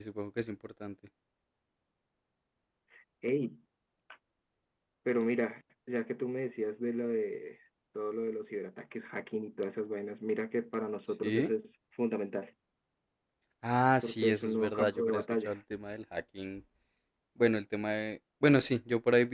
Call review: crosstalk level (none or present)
present